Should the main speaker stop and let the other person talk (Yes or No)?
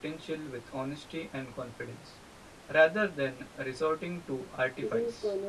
Yes